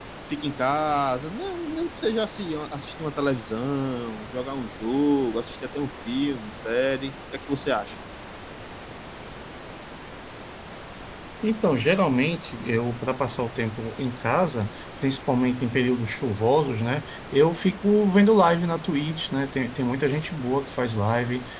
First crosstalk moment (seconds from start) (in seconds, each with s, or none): none